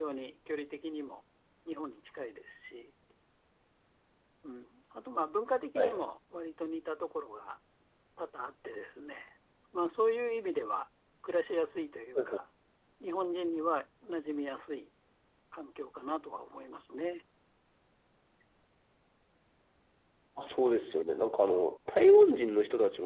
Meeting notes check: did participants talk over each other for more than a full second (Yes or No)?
No